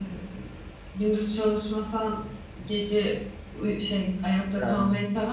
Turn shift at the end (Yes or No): No